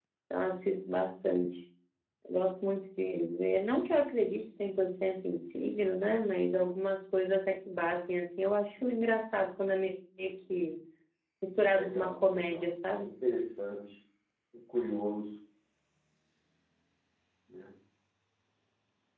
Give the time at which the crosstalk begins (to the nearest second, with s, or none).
12 s